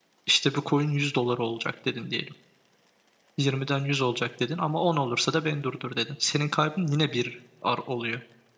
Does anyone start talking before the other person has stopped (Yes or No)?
No